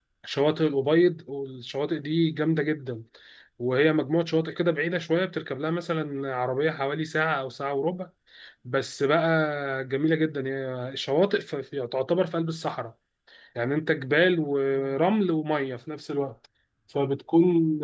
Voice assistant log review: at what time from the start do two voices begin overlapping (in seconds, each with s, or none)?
none